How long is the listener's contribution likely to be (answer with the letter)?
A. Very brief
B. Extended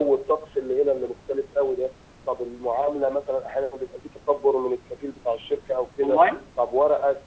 A